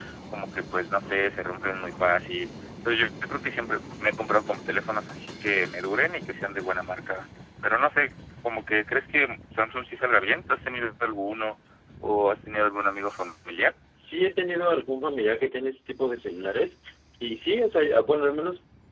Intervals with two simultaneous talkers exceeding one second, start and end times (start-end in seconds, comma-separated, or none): none